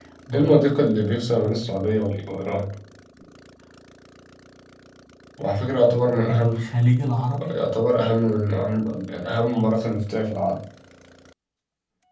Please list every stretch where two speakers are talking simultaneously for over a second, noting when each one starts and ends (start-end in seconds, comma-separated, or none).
none